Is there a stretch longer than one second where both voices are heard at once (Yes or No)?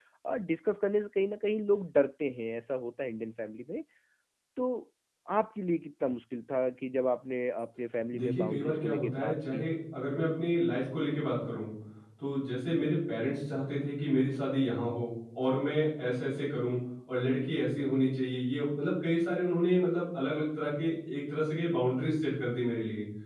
Yes